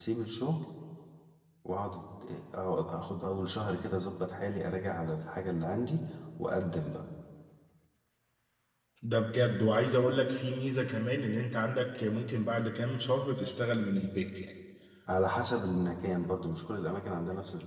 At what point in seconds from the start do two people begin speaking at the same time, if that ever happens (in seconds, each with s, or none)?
none